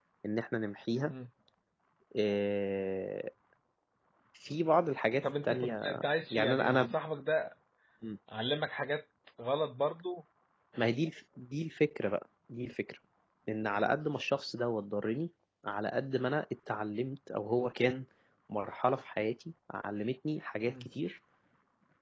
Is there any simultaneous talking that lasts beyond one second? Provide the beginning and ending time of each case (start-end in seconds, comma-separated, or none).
5.2-6.9